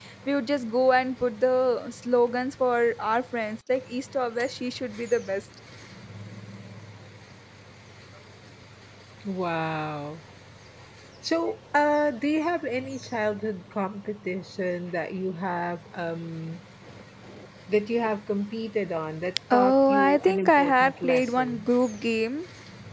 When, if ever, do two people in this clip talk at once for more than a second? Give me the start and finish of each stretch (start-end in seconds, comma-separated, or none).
19.5-21.7